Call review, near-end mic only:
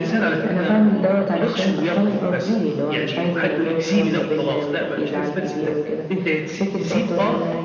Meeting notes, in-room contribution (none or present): none